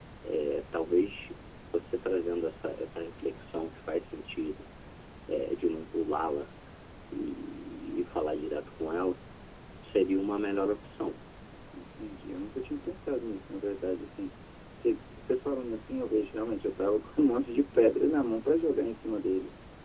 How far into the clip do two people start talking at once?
none

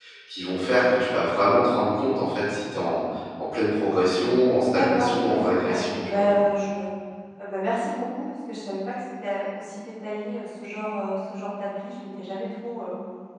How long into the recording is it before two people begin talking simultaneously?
4.7 s

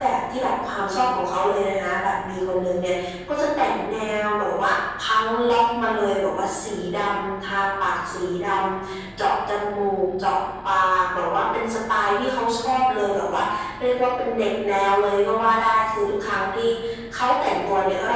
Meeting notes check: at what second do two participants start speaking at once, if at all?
none

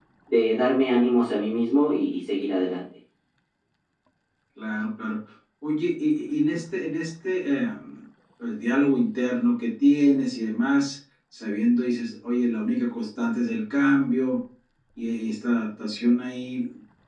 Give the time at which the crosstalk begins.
none

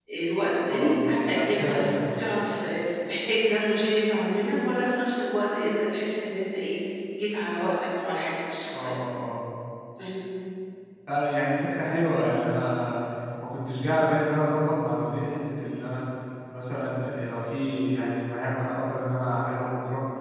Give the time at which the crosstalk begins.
0.7 s

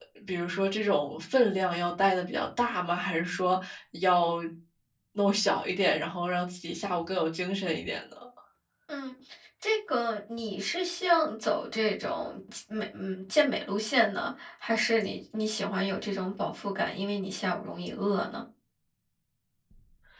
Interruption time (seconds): none

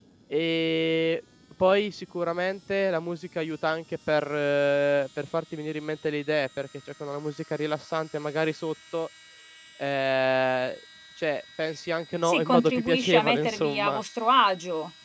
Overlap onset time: 12.2 s

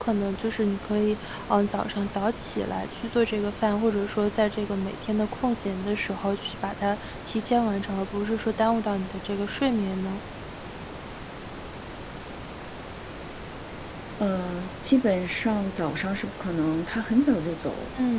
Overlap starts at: none

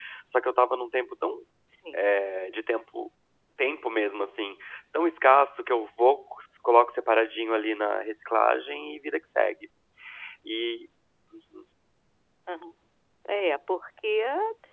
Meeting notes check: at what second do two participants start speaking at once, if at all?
none

